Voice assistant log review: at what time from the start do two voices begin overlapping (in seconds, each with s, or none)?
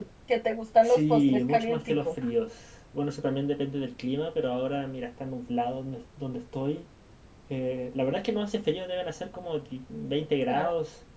0.8 s